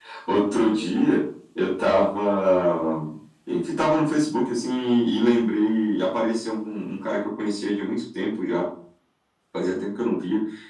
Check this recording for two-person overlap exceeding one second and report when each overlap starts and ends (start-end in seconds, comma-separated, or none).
none